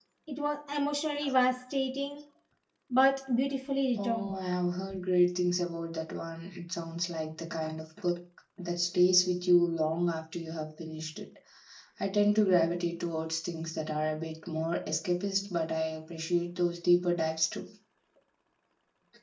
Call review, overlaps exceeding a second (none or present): none